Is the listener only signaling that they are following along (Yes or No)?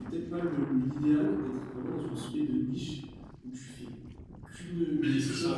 No